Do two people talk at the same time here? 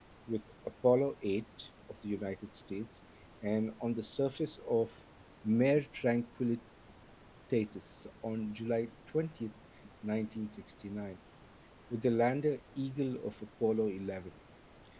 No

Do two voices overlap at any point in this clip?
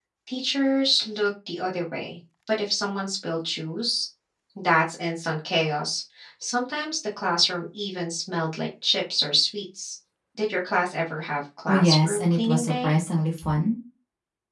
Yes, from 11.7 s

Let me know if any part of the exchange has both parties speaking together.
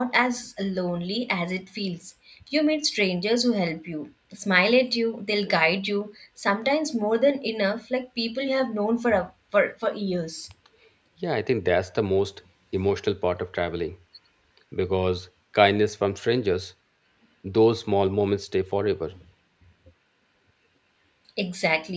No

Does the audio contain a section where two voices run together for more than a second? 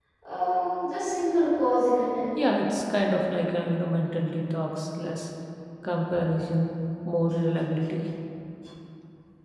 No

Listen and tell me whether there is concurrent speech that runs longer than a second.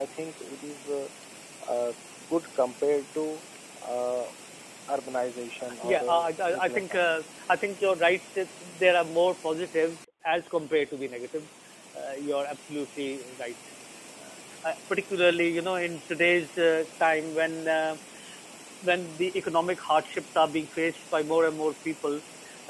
Yes, from 5.8 s

